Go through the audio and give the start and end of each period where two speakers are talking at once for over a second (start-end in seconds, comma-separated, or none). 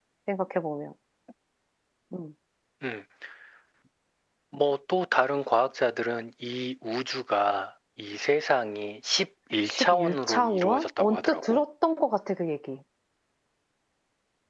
9.7-11.6